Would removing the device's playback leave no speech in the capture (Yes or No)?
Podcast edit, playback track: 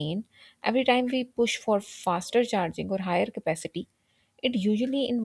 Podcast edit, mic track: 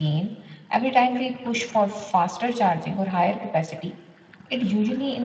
Yes